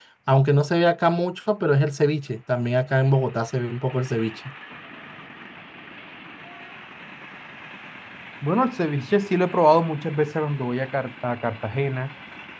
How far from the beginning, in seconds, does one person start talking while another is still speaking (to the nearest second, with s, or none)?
none